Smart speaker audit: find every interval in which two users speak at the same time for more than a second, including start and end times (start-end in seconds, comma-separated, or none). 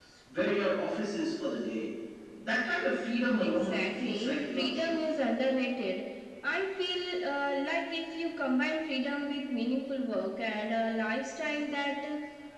3.4-5.1